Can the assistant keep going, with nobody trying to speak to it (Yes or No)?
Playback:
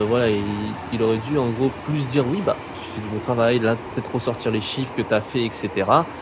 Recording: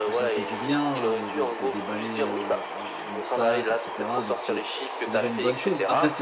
No